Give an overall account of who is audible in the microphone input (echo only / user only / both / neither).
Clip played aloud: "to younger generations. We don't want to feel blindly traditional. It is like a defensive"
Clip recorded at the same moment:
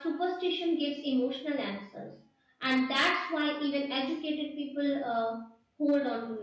user only